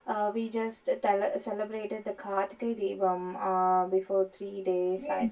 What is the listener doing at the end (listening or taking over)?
taking over